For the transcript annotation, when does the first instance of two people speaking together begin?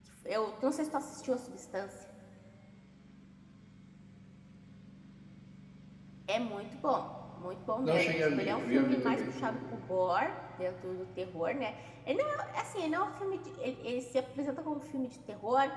8 s

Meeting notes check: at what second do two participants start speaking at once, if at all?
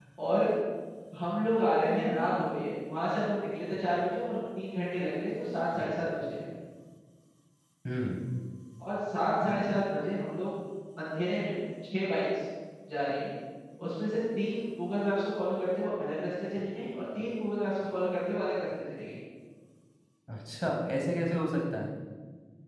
none

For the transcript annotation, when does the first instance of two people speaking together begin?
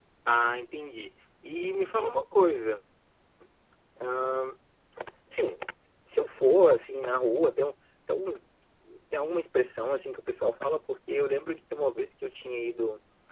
none

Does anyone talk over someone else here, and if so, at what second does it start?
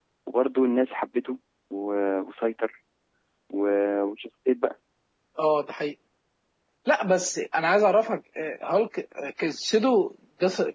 none

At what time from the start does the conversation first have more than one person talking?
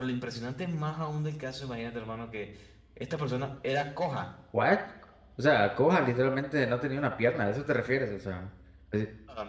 none

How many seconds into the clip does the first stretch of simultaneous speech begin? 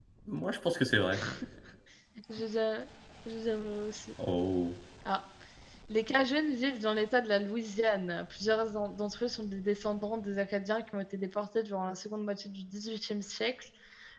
none

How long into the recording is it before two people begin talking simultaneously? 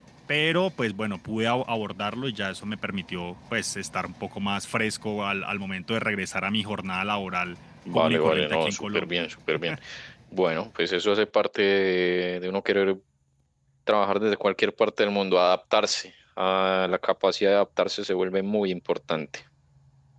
8 s

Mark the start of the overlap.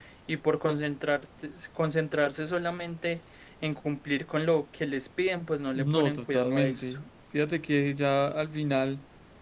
6 s

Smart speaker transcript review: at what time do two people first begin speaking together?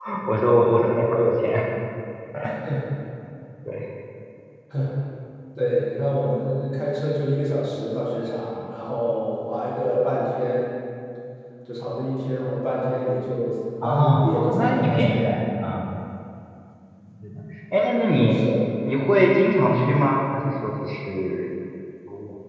14 s

